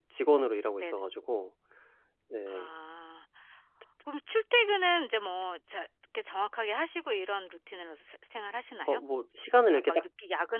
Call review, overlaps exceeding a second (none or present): none